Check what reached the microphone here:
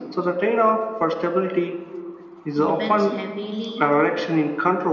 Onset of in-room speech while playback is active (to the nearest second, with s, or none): 3 s